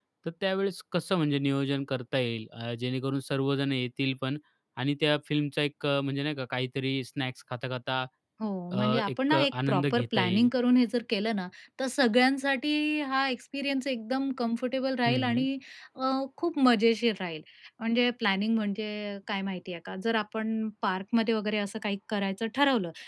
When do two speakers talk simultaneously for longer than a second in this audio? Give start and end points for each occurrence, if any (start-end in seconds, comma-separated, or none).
8.7-10.5